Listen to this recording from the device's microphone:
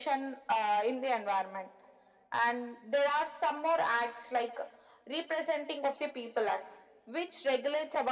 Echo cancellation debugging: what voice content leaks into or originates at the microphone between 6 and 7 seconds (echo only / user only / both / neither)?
echo only